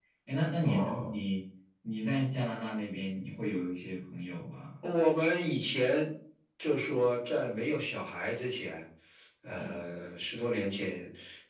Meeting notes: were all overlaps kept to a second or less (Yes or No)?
Yes